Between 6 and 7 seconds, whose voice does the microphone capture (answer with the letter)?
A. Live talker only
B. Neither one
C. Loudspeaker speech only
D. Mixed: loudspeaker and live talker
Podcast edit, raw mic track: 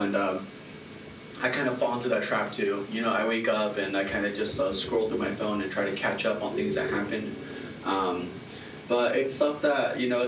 C